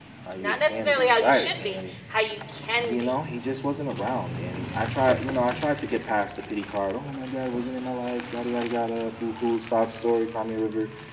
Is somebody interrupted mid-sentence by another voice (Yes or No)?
Yes